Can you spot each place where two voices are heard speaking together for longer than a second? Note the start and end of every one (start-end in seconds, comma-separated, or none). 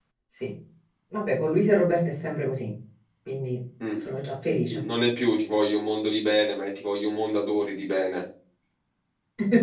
none